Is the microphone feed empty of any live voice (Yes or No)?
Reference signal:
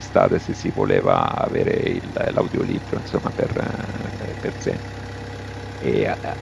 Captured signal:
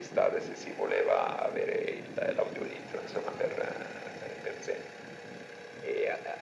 Yes